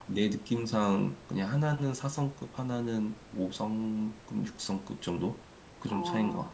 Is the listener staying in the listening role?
No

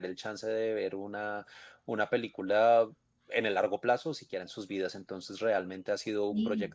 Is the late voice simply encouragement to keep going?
Yes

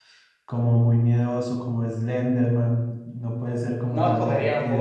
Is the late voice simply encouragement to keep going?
No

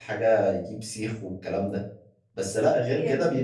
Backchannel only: Yes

